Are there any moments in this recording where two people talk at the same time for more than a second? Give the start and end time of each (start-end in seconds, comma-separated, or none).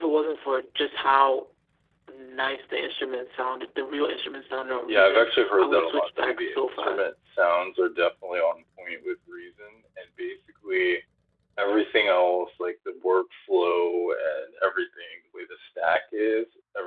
4.9-7.1